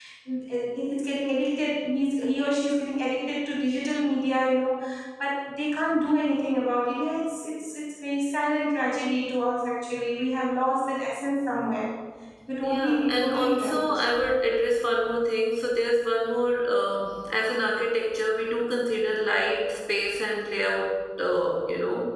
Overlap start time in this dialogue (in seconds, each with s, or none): 12.6 s